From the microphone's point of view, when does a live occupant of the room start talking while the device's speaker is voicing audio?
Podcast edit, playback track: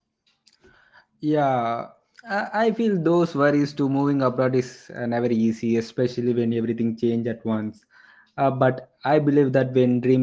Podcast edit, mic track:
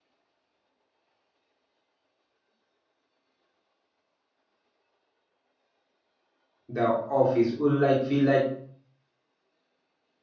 7 s

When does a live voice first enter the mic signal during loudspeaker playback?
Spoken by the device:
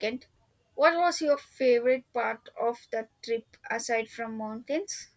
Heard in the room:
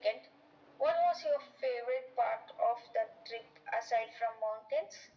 none

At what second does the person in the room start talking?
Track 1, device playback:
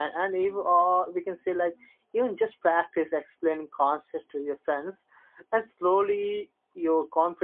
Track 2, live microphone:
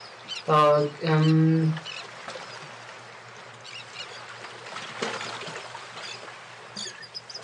0 s

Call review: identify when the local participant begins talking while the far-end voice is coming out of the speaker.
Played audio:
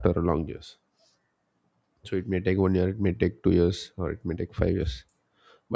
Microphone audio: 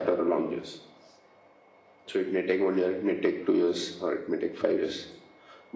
none

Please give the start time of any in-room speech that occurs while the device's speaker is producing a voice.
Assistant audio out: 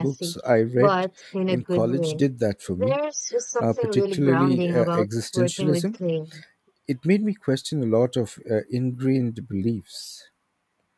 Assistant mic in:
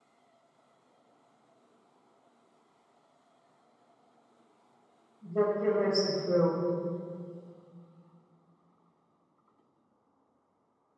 5 s

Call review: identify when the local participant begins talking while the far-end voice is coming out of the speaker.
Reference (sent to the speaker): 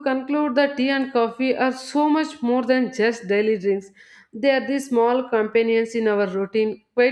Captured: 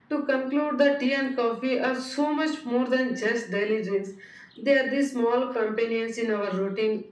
none

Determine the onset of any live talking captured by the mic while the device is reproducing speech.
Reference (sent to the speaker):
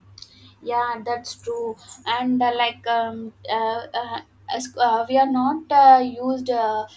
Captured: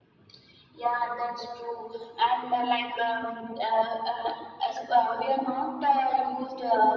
none

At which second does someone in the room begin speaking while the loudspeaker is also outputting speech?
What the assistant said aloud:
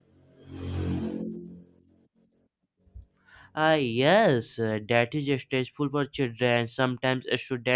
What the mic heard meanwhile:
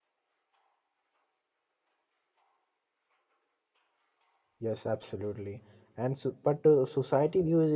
5 s

